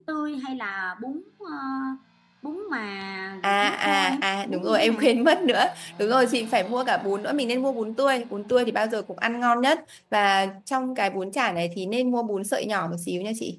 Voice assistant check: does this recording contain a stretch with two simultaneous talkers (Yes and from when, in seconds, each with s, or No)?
Yes, from 3.4 s